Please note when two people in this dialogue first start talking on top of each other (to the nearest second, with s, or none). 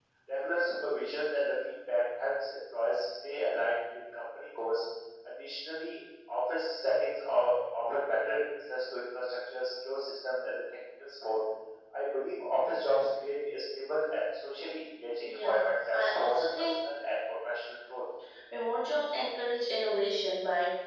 15 s